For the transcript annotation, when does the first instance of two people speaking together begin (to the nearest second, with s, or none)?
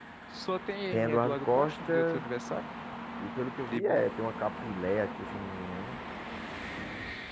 1 s